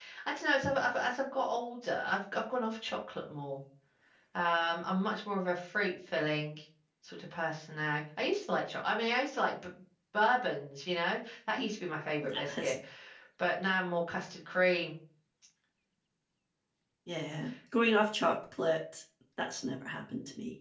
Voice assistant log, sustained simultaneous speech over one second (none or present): none